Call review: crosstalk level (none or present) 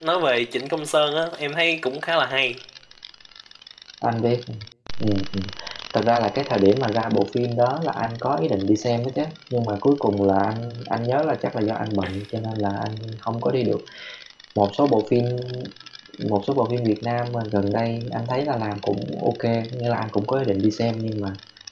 none